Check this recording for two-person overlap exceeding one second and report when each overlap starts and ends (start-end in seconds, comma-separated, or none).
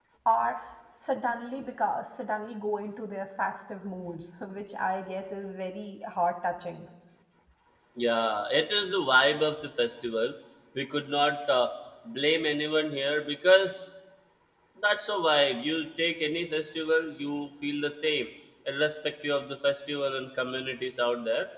none